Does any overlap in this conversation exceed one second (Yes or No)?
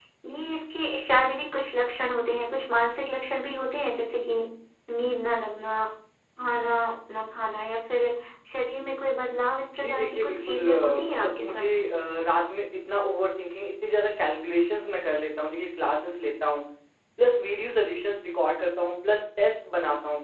Yes